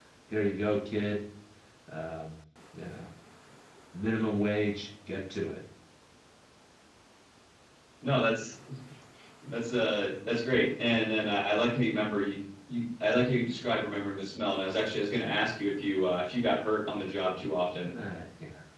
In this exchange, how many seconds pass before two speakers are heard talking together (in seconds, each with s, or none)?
none